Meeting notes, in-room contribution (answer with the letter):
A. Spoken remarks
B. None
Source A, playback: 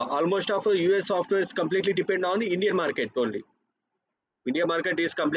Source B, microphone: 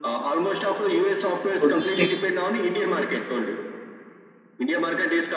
A